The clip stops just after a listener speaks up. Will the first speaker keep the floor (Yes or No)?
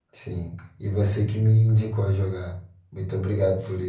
No